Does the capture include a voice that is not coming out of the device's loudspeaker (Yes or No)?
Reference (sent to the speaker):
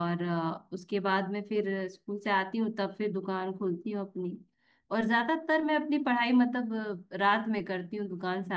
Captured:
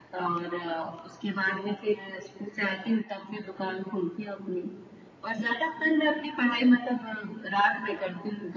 No